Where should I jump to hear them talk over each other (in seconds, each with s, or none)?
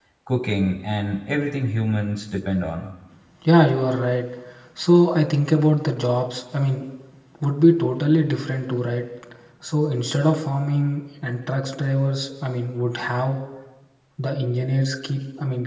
none